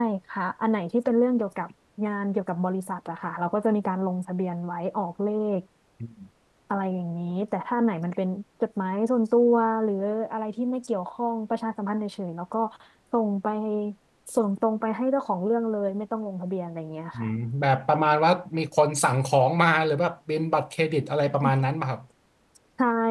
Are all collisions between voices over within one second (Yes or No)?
Yes